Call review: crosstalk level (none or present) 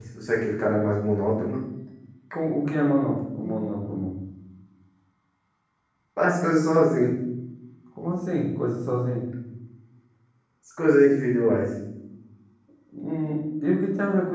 none